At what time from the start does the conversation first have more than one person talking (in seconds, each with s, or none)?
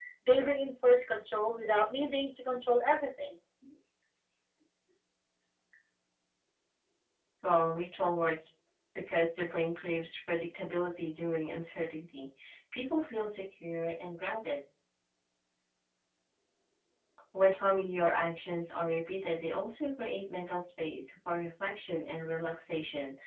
none